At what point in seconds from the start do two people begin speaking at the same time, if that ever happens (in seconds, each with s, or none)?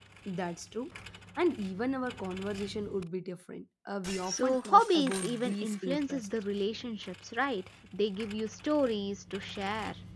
4.3 s